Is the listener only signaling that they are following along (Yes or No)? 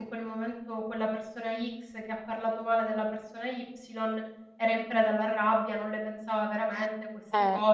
No